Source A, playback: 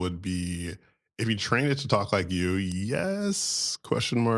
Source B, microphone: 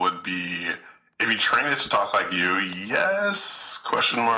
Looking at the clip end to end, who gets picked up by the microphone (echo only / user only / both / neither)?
echo only